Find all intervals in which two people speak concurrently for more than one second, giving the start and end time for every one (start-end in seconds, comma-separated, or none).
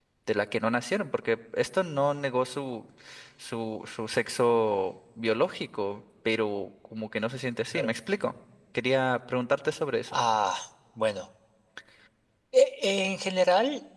none